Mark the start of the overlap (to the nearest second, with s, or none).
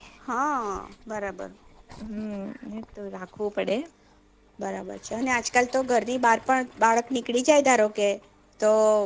none